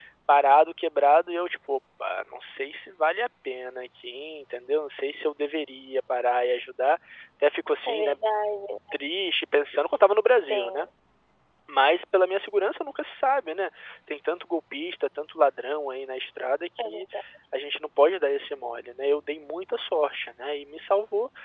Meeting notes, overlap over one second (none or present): none